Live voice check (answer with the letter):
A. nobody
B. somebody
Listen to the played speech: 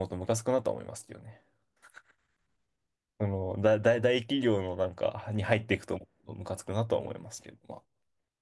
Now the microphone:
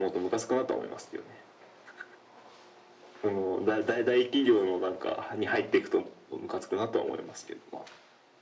A